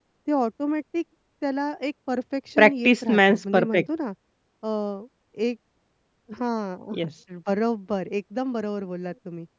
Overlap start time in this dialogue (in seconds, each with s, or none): 2.6 s